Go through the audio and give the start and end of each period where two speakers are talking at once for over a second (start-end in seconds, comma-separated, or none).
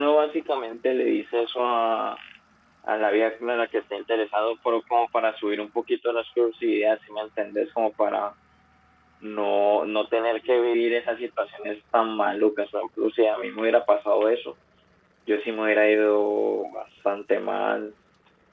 none